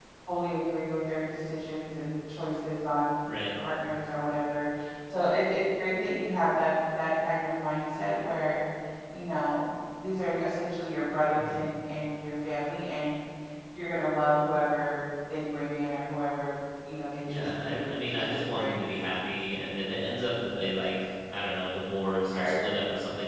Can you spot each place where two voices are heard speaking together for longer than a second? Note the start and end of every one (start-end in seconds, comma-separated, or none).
17.3-18.7